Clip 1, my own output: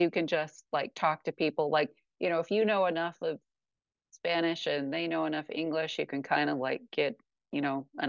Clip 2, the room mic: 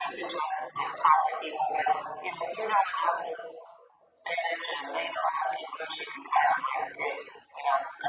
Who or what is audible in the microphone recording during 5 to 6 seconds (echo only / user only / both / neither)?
echo only